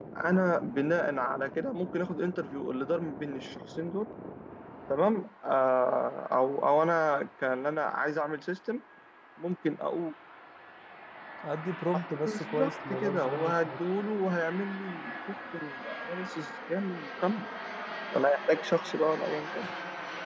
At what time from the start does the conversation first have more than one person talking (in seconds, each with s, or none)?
12.2 s